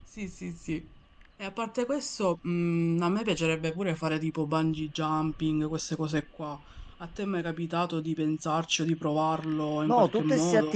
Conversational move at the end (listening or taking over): taking over